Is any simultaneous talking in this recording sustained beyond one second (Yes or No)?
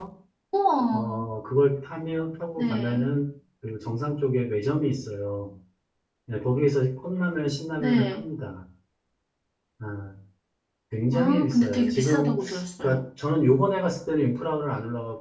Yes